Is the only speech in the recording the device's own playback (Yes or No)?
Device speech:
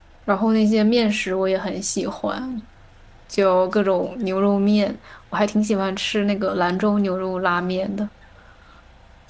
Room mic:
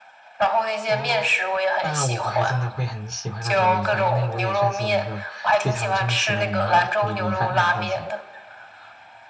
No